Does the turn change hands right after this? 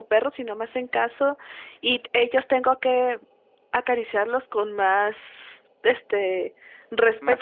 No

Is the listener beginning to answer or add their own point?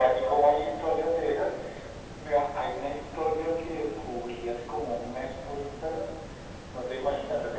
No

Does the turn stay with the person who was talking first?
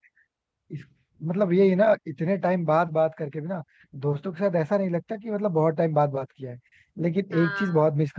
Yes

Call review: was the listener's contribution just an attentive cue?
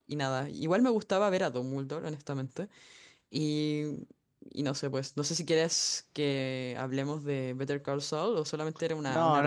No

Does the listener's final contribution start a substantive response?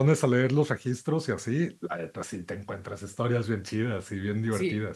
Yes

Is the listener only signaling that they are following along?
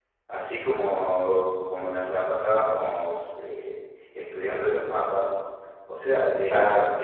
Yes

